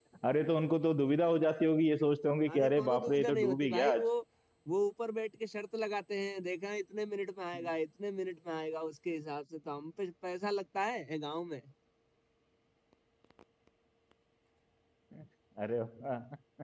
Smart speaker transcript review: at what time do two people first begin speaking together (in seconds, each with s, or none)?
2.5 s